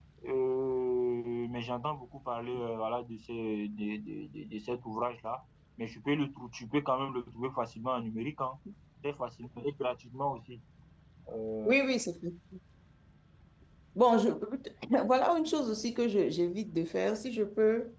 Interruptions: none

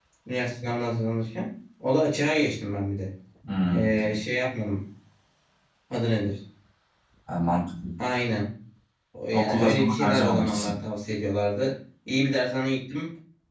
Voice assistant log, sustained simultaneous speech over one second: present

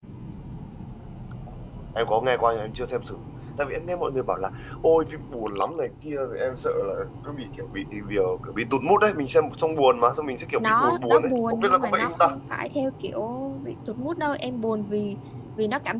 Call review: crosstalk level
present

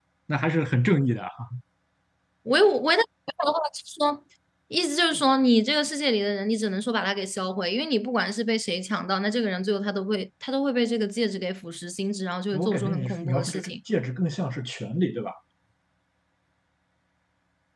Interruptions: present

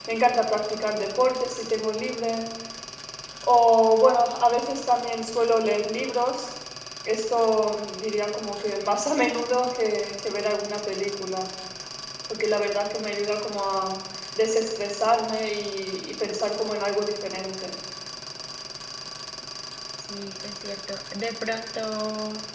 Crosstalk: none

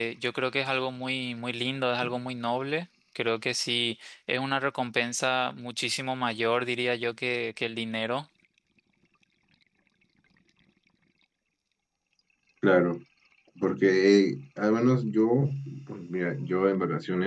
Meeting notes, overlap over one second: none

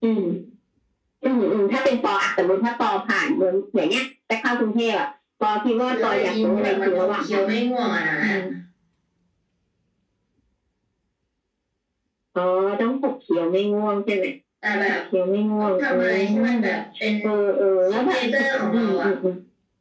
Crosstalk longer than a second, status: present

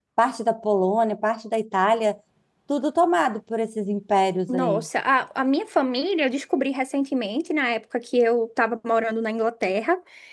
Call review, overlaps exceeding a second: none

